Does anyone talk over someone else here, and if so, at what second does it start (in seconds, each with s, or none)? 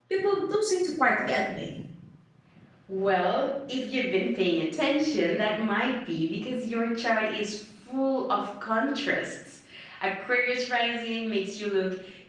none